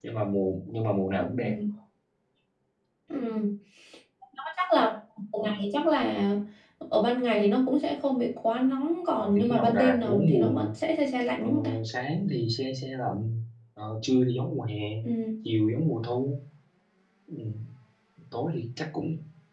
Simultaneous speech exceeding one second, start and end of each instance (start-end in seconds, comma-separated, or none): 9.2-10.7